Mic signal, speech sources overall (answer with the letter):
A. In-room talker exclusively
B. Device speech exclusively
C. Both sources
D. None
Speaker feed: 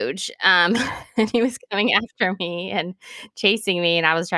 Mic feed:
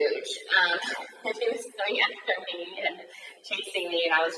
B